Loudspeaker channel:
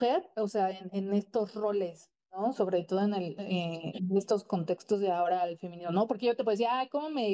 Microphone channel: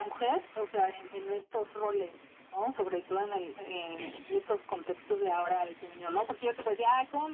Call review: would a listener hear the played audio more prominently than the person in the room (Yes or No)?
Yes